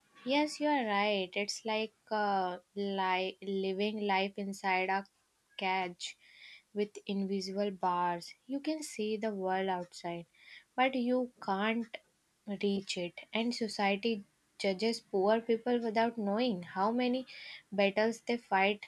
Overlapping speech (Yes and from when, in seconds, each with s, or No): No